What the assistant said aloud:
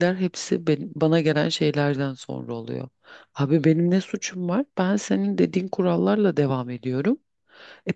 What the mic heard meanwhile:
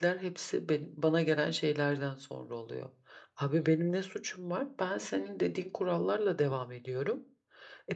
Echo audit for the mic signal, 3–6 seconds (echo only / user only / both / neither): echo only